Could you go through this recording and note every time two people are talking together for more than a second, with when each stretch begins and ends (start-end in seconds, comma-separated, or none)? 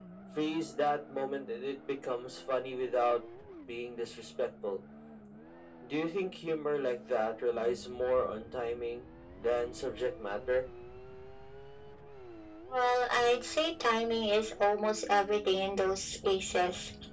none